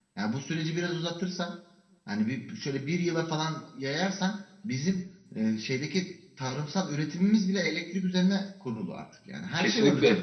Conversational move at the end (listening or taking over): taking over